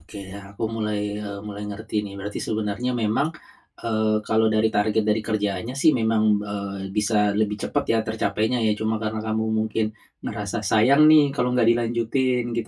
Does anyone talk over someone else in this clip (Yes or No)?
No